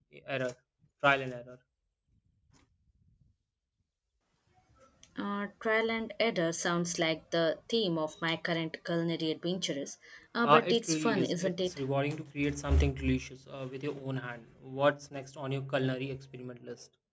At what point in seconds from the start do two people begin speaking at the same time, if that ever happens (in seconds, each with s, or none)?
10.4 s